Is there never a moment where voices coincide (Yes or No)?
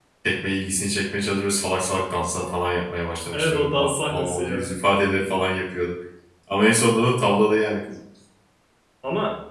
No